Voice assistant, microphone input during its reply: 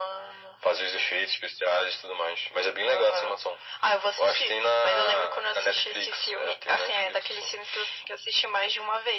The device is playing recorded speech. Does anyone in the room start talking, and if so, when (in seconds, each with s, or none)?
none